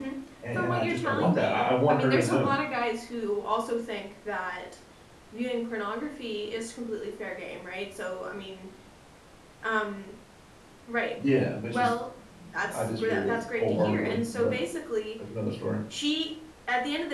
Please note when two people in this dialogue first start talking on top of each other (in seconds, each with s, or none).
0.6 s